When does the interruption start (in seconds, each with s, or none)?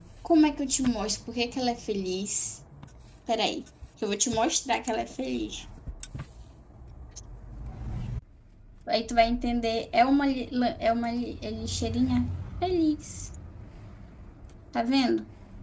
none